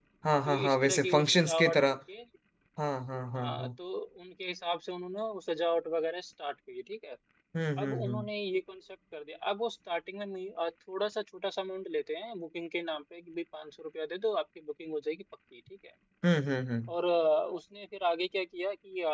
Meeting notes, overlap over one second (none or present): present